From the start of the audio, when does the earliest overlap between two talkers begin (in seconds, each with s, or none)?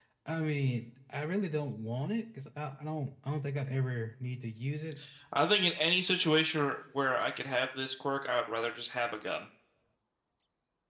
none